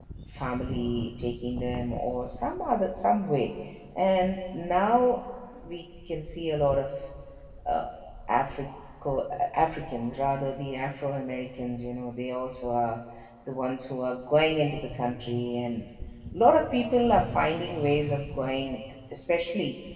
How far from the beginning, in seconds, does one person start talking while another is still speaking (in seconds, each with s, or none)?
none